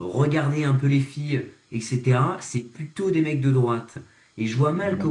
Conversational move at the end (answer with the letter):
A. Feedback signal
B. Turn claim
A